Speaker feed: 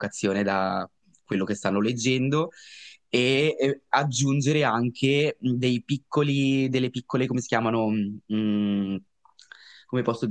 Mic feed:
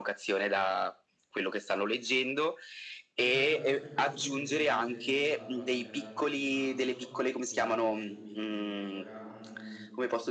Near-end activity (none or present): present